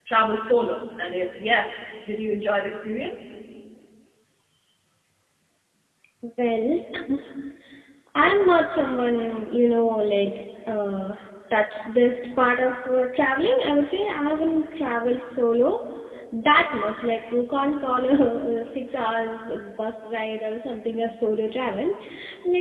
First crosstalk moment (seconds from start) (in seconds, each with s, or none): none